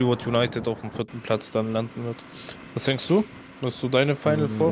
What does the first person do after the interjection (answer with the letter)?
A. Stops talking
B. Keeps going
A